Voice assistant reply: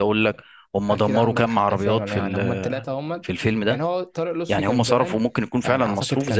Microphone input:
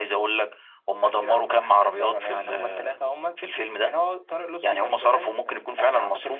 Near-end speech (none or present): present